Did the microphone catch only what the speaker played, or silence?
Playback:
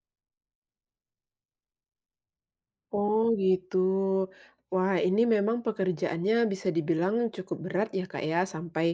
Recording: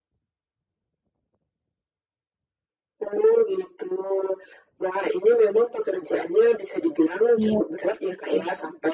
No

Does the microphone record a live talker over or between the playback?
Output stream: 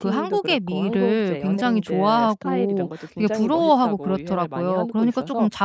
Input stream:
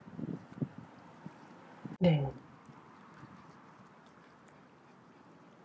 Yes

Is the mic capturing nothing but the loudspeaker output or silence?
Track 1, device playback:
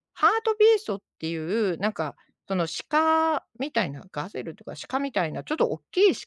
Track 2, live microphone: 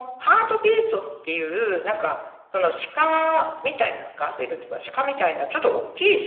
Yes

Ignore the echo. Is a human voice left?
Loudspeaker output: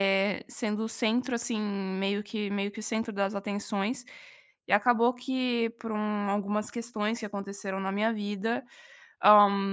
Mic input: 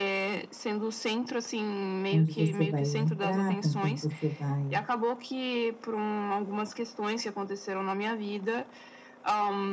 Yes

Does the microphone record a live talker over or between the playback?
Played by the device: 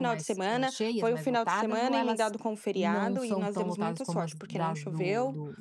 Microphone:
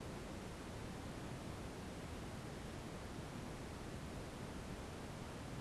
No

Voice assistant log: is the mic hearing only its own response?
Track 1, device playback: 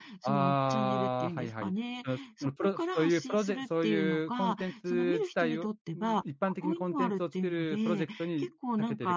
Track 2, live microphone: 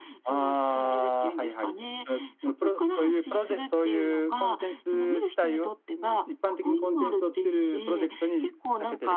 Yes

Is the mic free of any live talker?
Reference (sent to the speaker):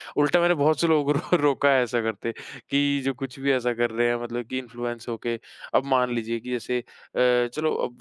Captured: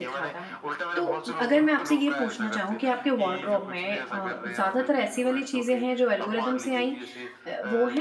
No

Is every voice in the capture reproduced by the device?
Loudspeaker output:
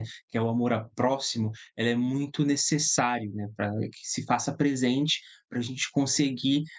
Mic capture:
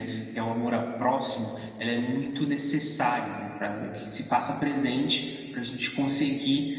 Yes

